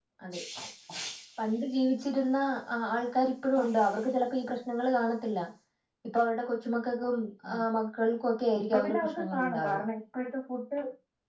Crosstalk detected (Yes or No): Yes